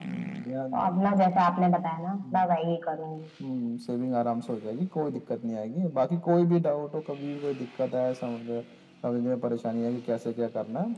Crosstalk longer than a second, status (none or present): none